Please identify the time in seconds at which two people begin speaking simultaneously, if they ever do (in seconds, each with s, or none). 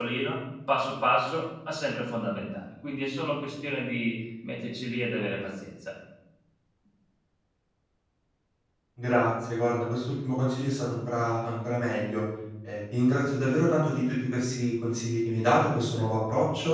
none